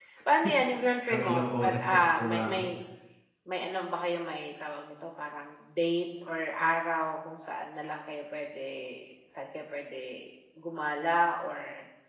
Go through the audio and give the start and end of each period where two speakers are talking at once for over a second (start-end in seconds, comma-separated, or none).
1.1-2.7